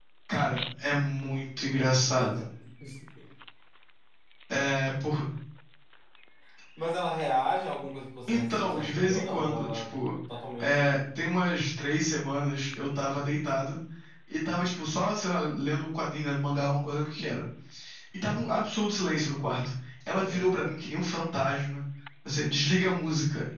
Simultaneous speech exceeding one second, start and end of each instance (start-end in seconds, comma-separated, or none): 8.3-9.9